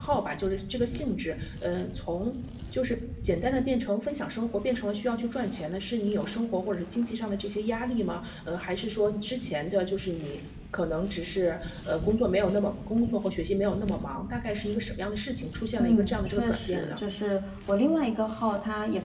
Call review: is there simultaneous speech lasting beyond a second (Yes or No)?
Yes